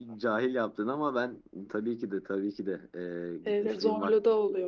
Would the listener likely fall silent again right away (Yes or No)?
No